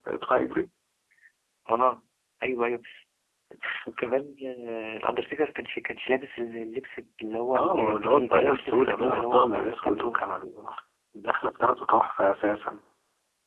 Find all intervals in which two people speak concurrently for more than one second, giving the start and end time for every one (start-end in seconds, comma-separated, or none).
7.5-10.2